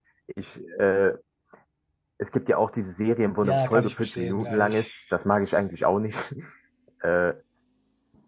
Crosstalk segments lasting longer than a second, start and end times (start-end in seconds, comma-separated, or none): 3.4-4.9